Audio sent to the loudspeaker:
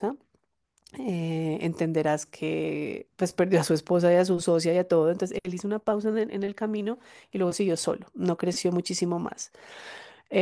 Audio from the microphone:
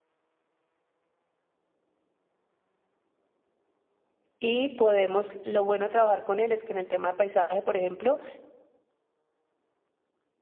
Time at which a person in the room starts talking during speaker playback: 4.4 s

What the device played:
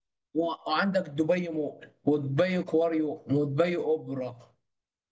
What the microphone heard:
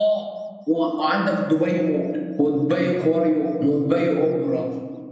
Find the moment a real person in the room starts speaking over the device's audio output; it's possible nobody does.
none

